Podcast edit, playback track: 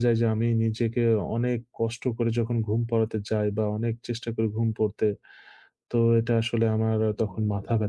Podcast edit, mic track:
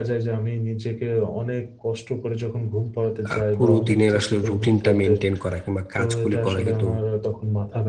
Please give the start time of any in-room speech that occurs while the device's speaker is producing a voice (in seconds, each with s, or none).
3.3 s